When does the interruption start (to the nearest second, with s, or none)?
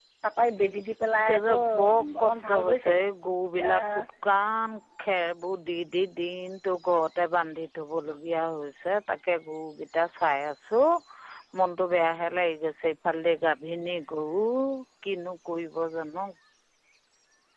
1 s